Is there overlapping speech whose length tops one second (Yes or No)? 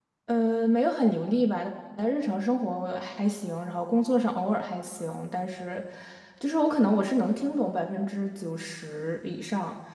No